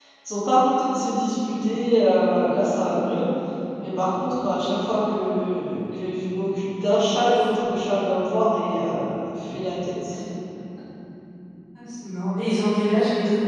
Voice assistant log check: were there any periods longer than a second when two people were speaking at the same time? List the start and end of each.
none

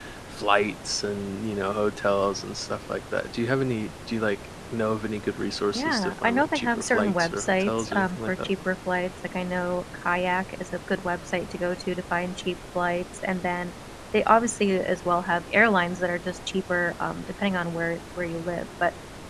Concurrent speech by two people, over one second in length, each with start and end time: 5.7-8.5

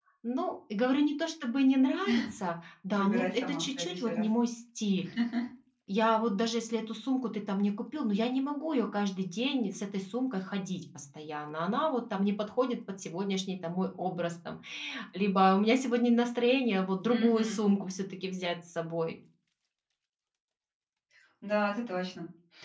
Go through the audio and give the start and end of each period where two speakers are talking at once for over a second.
3.0-4.2

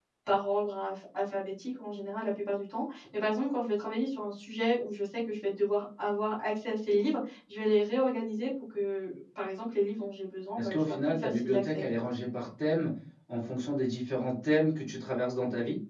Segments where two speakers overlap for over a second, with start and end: 10.6-11.8

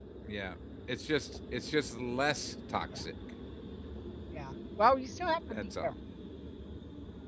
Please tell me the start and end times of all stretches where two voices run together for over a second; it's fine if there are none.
none

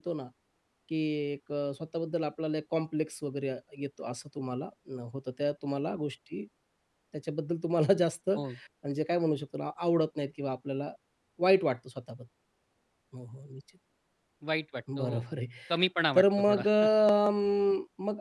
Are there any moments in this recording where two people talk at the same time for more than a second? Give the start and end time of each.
none

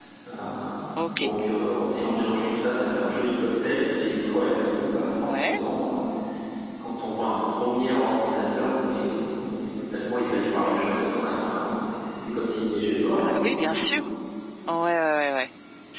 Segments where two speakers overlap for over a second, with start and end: none

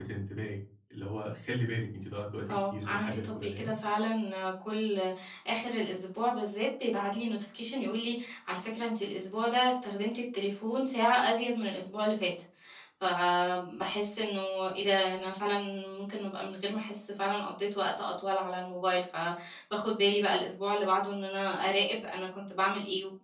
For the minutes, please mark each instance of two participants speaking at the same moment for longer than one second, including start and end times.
2.5-3.7

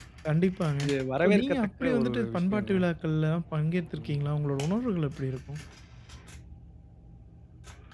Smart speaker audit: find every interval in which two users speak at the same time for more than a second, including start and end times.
1.2-2.7

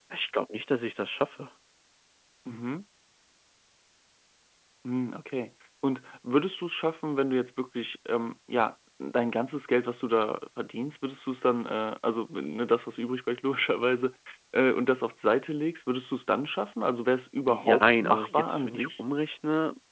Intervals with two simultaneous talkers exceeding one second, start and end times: 17.5-19.0

